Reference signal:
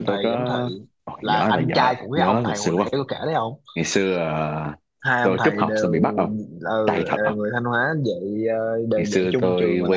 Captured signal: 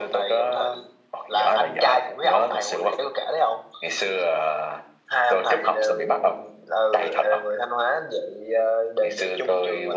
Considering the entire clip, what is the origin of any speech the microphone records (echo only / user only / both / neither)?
echo only